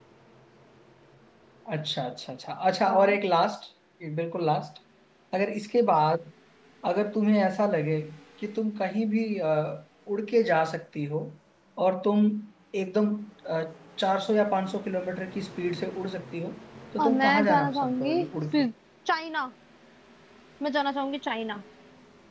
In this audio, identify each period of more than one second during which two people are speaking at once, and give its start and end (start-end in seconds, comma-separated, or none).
17.0-18.6